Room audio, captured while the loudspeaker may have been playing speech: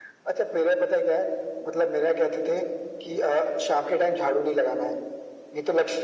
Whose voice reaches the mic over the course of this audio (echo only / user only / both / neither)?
echo only